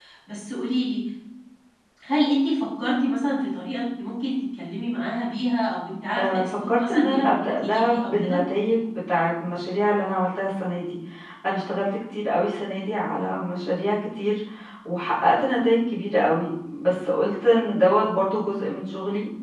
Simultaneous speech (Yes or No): Yes